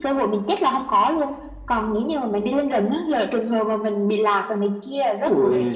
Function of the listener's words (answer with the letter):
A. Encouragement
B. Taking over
B